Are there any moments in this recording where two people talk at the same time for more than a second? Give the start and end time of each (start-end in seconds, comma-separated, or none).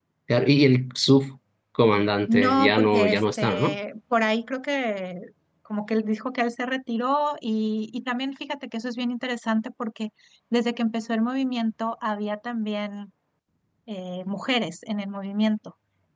2.3-3.8